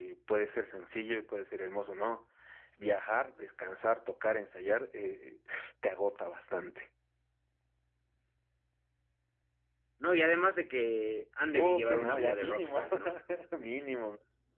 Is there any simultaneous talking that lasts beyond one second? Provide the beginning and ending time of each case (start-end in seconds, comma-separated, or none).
11.5-12.9